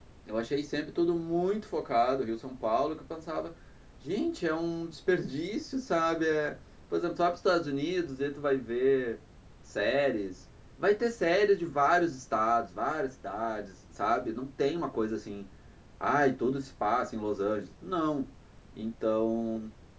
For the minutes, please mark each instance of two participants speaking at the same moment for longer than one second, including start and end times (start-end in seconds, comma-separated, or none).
none